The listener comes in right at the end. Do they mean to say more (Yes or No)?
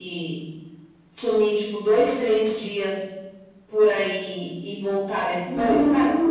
Yes